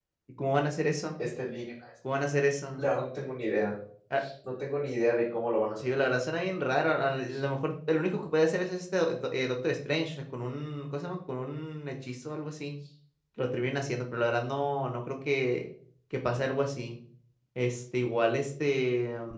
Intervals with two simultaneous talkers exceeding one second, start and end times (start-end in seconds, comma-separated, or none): none